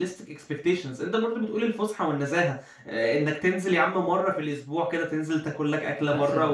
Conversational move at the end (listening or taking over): listening